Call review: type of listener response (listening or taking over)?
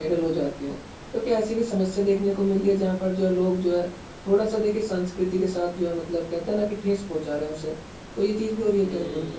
taking over